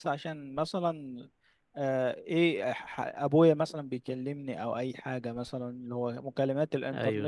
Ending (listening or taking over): listening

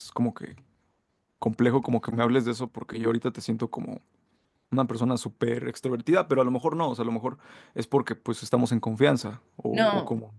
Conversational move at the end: taking over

